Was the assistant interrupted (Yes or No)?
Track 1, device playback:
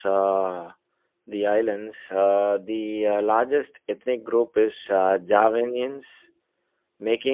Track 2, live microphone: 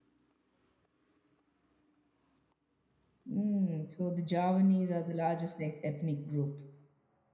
Yes